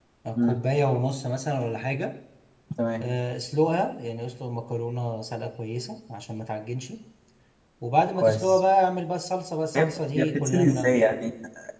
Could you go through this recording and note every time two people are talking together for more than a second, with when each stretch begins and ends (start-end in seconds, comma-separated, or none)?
9.8-11.0